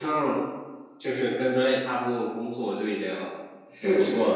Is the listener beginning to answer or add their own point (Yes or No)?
Yes